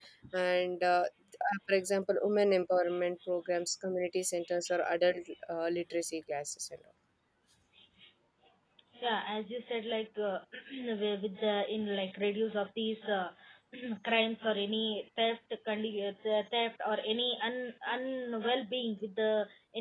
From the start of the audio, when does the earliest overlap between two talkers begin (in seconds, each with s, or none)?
none